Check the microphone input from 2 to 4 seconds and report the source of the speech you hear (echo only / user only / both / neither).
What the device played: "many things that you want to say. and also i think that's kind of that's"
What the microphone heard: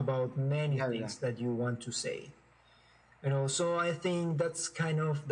echo only